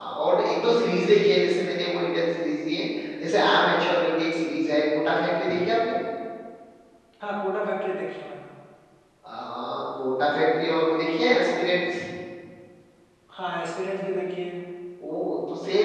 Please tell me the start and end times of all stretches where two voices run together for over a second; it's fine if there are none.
none

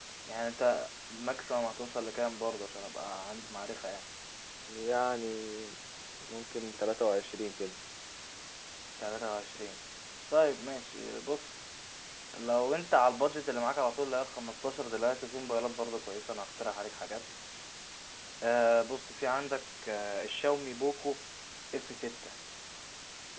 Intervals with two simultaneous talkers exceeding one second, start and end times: none

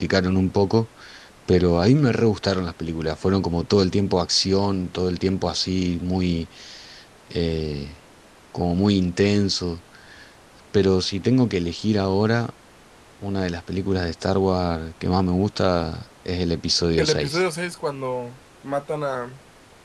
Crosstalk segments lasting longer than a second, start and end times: none

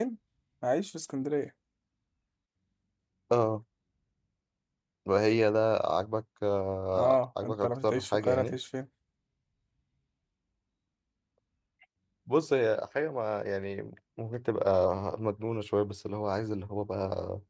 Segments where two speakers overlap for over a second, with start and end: 6.9-8.6

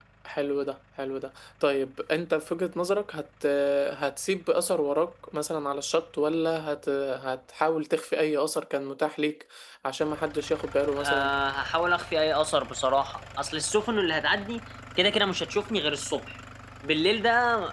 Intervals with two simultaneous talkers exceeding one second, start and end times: none

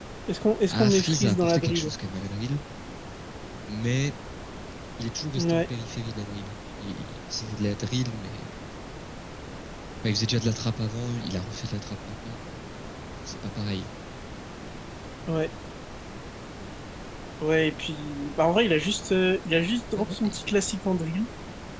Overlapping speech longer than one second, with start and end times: 0.7-1.9

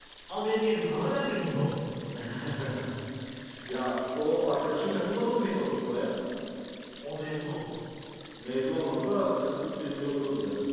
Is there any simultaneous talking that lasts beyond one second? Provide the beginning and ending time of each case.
none

